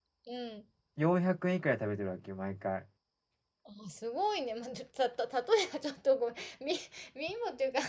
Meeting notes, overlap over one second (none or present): none